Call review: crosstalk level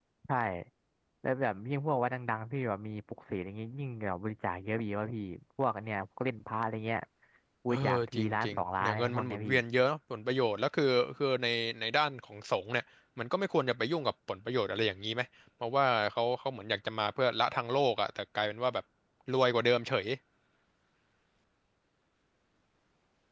present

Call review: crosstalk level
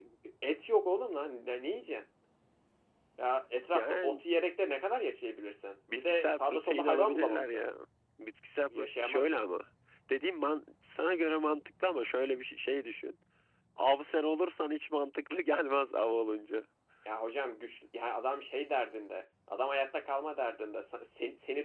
present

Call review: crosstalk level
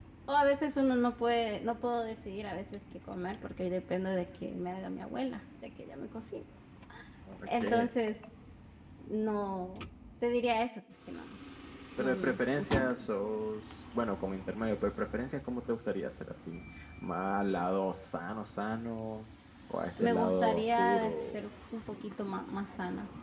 present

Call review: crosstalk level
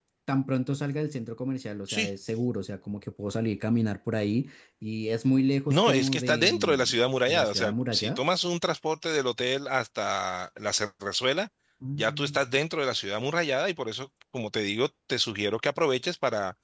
present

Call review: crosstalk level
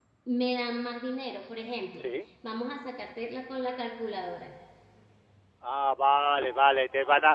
none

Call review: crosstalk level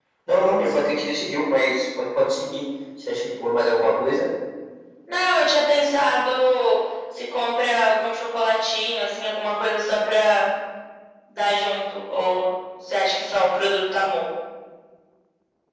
none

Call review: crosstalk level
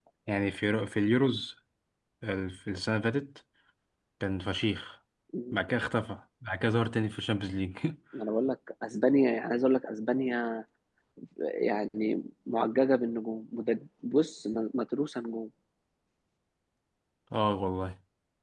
none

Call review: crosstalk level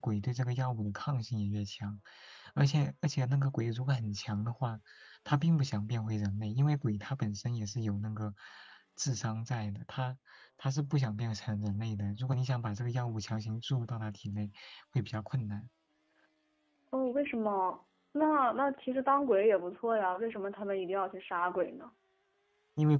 none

